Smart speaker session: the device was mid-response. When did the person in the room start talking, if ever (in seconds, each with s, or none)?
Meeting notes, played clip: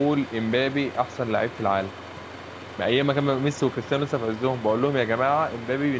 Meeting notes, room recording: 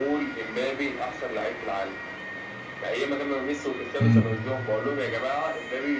4.0 s